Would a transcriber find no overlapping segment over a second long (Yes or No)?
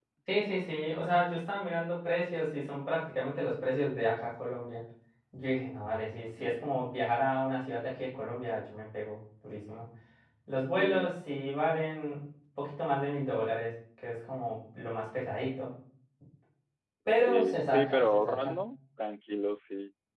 No